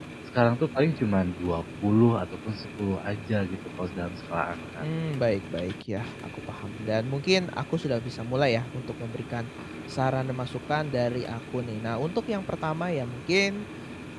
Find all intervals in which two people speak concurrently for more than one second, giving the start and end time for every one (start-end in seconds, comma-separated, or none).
none